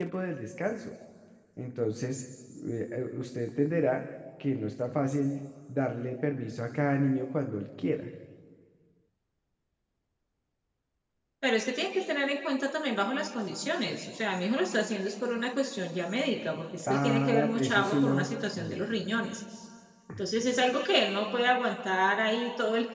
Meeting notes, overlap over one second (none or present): present